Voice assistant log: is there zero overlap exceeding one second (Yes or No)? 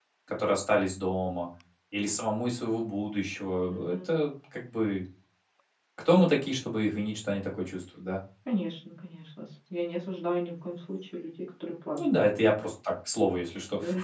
Yes